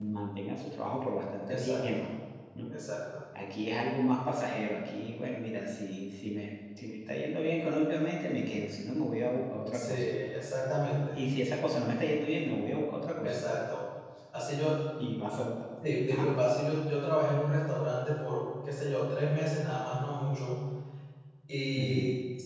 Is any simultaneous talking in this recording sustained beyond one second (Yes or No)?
No